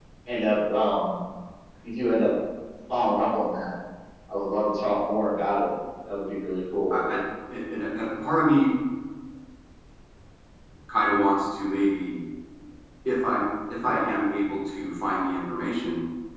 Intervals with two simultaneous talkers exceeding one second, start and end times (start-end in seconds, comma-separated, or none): none